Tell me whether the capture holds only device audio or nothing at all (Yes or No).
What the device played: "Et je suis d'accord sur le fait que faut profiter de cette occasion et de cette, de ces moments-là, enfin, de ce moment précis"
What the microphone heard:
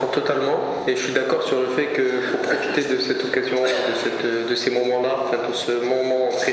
Yes